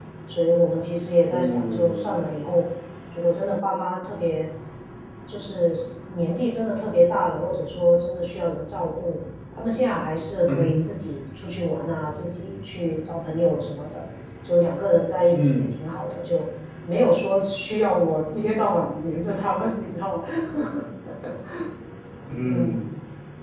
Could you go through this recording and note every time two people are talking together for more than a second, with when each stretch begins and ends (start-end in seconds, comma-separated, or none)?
1.3-2.5